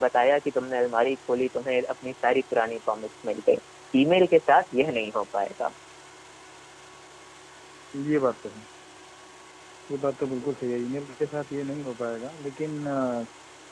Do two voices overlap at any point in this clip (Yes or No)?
No